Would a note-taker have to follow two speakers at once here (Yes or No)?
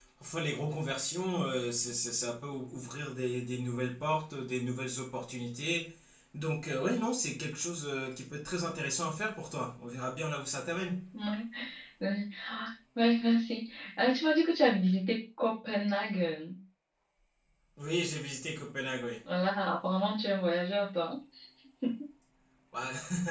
No